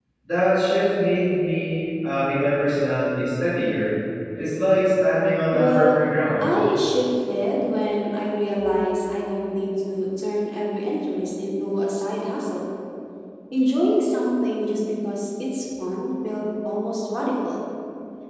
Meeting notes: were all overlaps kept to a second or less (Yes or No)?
Yes